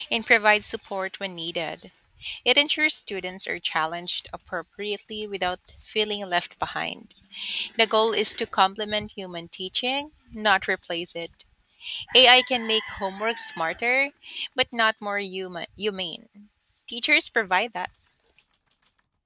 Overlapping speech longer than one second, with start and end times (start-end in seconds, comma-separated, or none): none